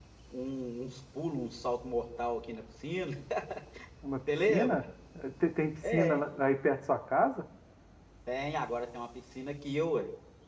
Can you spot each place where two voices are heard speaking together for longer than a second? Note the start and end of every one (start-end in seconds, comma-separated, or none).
none